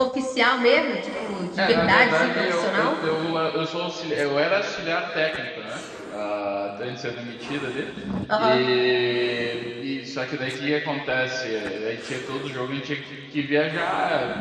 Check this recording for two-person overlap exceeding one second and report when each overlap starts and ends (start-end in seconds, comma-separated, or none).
1.6-2.9